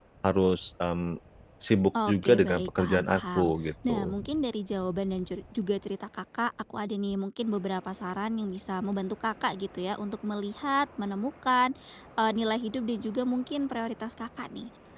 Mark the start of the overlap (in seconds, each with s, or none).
2.1 s